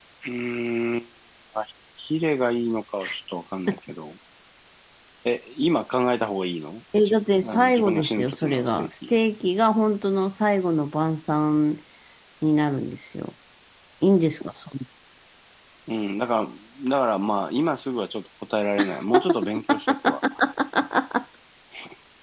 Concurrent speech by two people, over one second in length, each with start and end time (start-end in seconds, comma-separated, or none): 7.0-9.1